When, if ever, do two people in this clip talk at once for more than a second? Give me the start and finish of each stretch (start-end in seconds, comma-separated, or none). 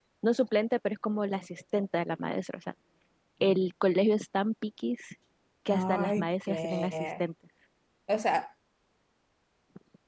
5.7-7.2